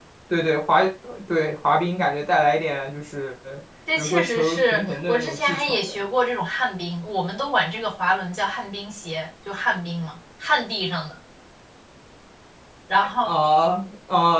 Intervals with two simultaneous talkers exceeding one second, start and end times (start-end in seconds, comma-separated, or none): 4.0-5.9